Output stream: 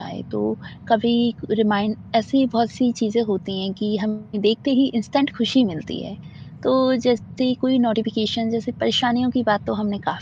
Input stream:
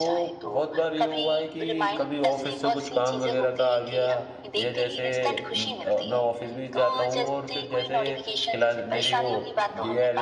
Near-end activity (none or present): present